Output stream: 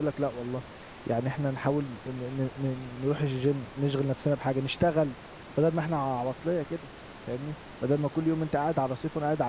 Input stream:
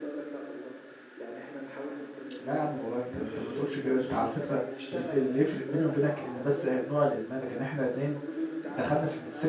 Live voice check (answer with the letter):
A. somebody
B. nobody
A